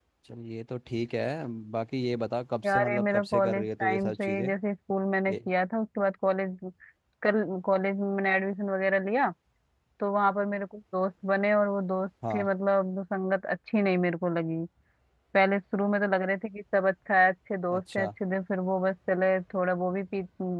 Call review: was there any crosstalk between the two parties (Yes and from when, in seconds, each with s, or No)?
Yes, from 2.6 s